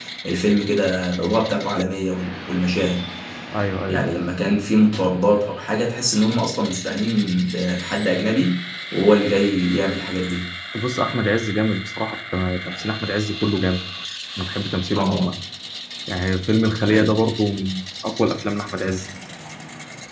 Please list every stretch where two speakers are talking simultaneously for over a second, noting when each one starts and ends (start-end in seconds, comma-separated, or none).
none